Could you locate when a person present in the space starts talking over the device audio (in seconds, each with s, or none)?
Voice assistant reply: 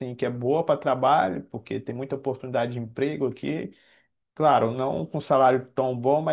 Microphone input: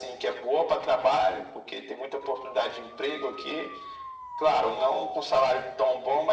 none